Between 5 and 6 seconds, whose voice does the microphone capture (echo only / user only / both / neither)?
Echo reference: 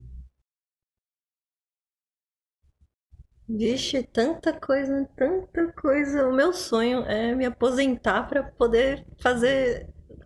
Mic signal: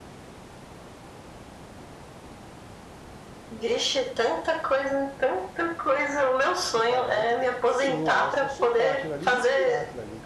echo only